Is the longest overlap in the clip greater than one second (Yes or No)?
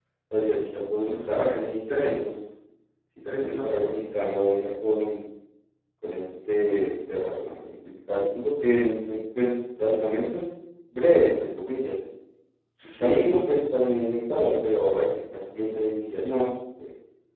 Yes